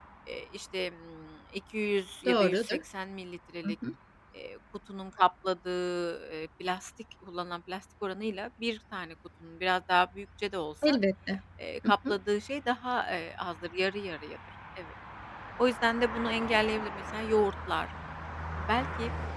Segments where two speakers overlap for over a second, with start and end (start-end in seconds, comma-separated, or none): none